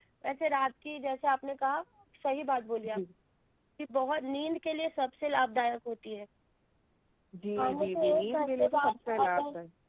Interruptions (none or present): present